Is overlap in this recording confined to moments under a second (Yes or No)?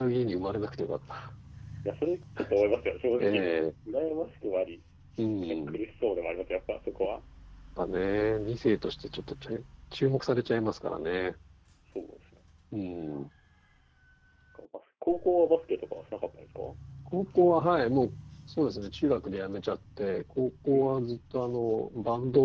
Yes